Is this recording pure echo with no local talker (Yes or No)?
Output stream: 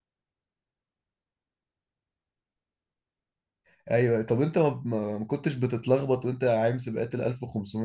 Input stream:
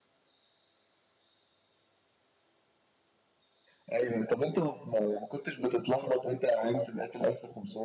Yes